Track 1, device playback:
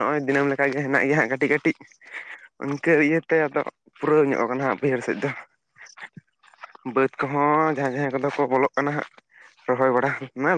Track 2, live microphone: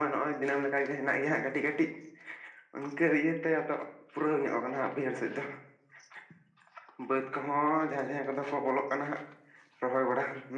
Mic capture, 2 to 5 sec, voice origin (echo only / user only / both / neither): echo only